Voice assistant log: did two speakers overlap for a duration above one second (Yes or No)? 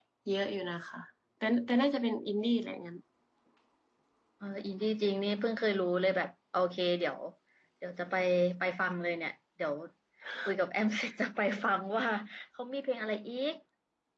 No